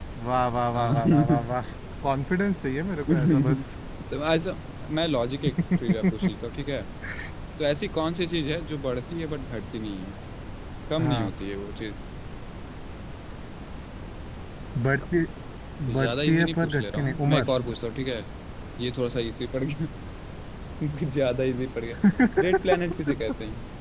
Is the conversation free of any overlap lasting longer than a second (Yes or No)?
No